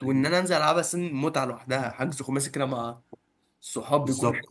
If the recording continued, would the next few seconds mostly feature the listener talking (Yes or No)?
Yes